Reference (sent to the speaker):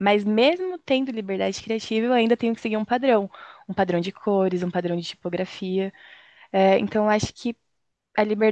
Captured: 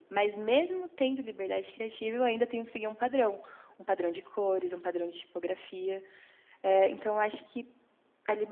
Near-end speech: none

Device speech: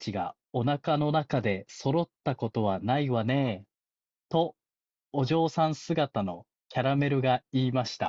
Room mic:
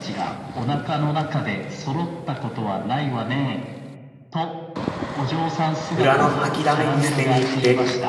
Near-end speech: present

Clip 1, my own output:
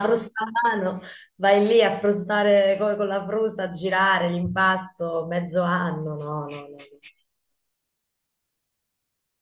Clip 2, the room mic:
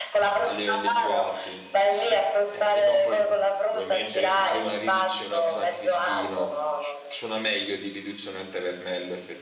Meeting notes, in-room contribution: present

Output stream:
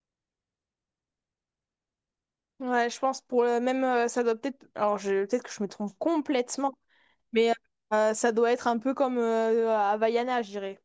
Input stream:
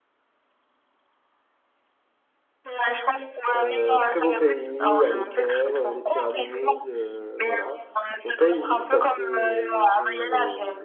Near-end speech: present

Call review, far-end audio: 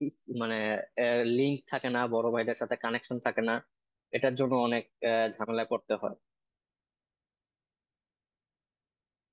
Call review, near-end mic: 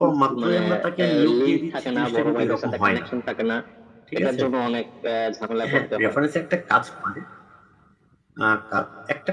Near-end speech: present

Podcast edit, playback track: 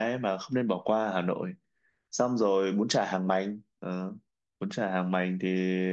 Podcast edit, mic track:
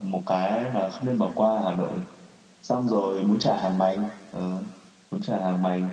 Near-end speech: none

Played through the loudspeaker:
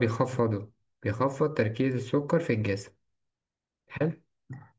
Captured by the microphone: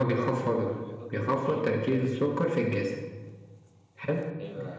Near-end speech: present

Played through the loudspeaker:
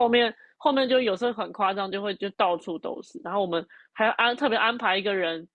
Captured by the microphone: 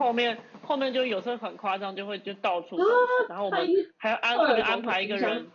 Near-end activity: present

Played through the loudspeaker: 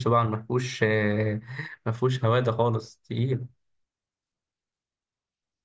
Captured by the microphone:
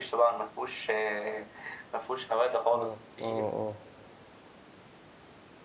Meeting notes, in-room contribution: present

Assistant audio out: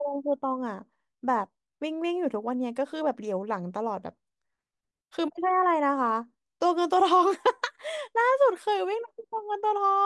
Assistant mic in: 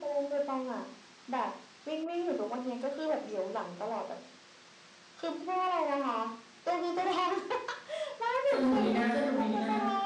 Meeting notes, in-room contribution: present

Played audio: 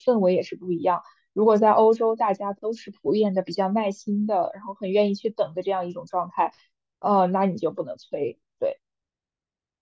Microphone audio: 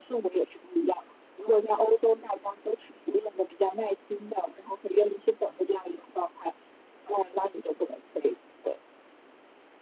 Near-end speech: none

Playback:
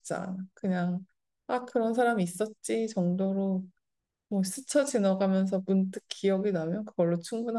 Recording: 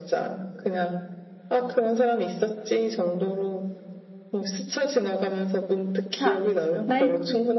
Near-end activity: present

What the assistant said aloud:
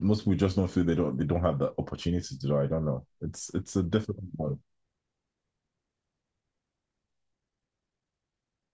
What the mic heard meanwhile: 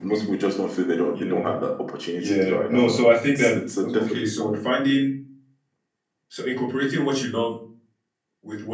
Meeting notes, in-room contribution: present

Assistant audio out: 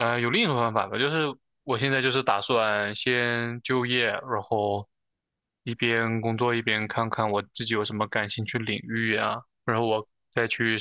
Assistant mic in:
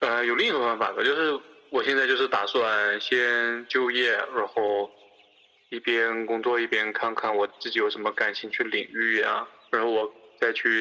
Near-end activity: none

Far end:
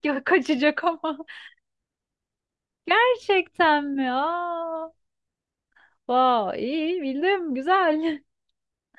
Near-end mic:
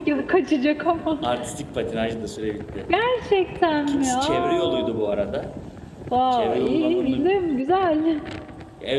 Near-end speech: present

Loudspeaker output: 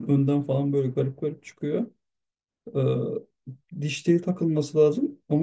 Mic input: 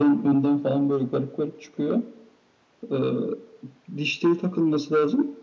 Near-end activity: none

